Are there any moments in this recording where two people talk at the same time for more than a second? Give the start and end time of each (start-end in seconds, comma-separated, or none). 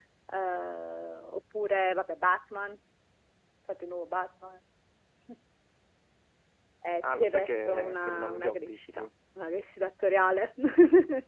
7.0-9.0